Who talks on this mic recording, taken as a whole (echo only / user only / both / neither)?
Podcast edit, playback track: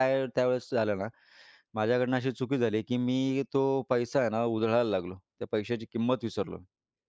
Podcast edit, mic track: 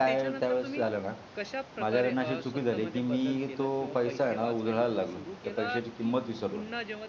both